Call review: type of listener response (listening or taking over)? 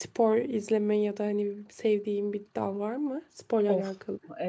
taking over